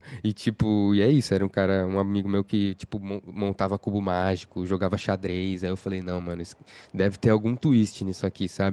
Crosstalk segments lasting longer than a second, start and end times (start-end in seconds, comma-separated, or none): none